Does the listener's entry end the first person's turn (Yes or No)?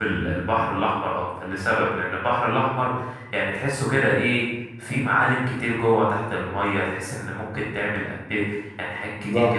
No